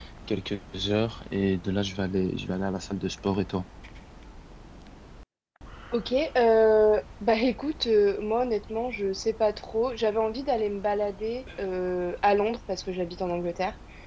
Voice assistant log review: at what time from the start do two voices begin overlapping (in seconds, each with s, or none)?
none